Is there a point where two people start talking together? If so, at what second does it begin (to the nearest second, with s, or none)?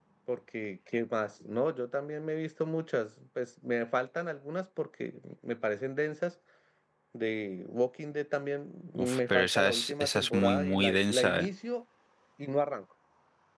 9 s